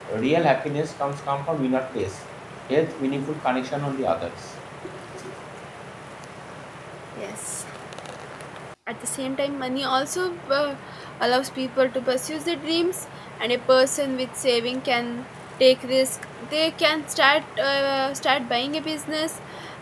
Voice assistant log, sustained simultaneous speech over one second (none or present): none